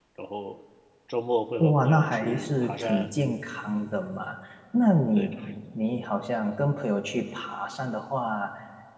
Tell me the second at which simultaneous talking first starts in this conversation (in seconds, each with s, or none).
1.6 s